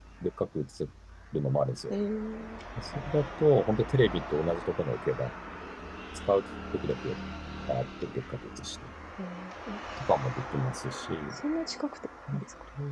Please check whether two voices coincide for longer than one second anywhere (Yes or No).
No